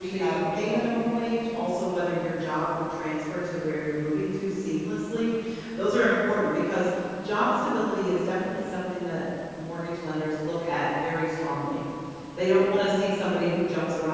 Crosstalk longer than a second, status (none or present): present